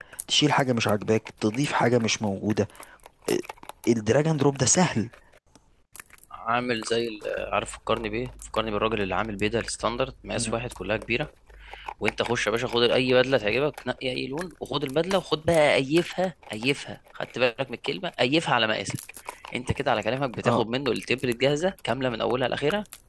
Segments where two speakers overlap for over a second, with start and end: none

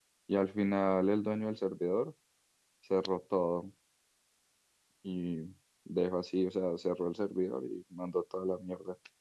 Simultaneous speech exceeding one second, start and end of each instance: none

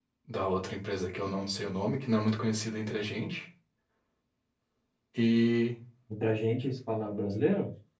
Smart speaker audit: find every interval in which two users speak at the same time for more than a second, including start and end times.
none

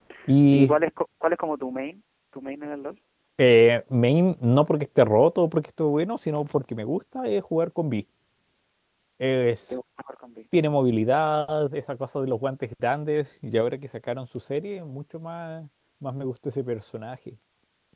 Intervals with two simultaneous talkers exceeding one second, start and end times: none

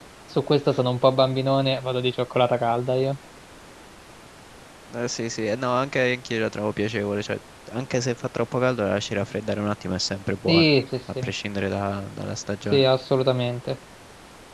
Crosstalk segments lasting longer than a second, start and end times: none

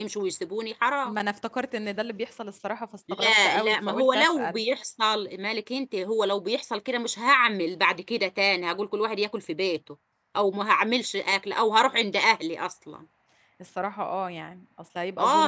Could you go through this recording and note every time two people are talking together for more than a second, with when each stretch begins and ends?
3.1-4.6

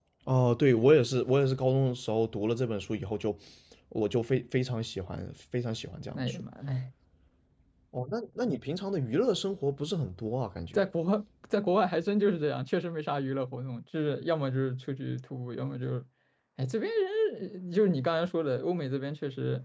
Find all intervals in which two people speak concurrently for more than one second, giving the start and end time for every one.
none

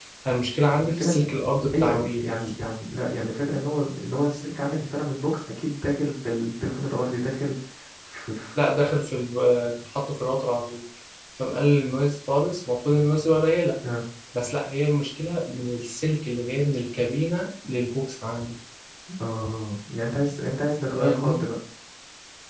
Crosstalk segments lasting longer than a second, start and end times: none

